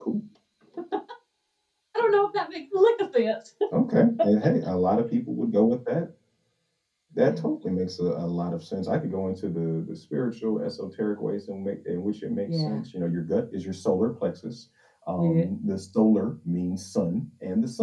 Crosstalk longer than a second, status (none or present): none